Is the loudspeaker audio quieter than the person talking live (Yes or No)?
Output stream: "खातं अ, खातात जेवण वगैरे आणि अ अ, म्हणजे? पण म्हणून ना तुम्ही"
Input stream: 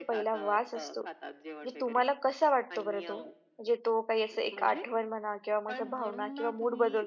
Yes